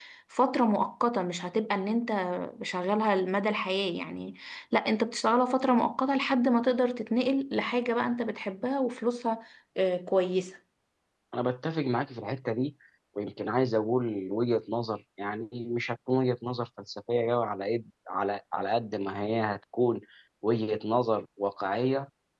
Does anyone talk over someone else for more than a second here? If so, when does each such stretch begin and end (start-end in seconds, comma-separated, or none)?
none